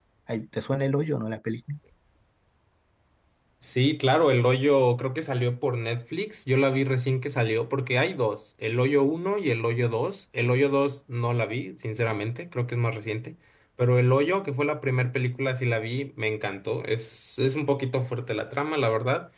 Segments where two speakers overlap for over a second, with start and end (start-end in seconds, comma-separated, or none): none